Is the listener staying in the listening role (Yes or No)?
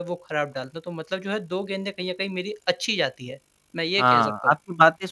No